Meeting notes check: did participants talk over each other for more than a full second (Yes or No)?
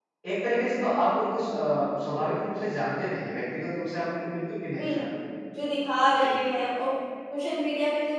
No